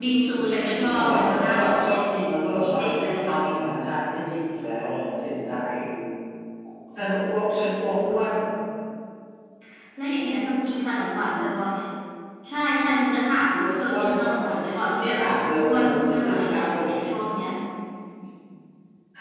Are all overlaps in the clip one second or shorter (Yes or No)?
No